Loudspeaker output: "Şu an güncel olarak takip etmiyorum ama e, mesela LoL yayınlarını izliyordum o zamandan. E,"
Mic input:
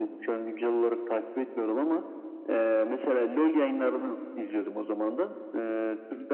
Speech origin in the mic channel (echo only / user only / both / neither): echo only